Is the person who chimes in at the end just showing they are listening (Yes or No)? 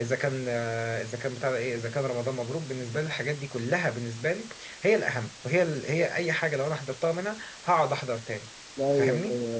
No